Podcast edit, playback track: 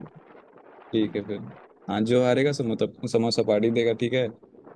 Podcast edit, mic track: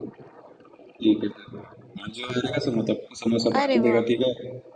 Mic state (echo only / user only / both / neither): both